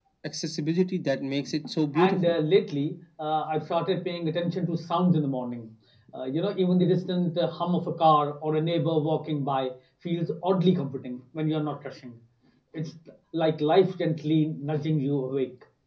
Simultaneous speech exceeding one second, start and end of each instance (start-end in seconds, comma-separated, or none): none